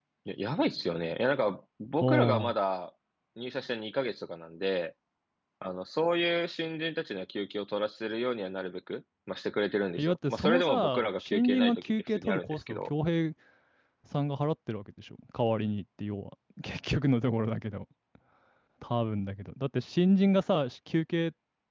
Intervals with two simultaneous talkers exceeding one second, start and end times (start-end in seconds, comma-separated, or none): 10.0-12.9